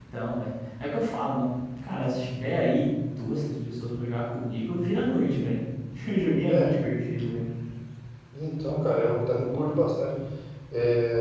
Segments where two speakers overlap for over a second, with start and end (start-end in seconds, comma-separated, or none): none